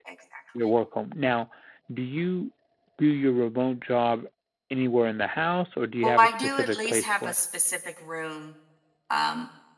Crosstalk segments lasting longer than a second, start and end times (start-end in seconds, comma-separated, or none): 6.0-7.3